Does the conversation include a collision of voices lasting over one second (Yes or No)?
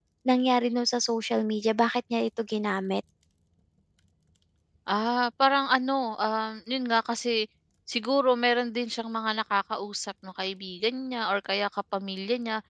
No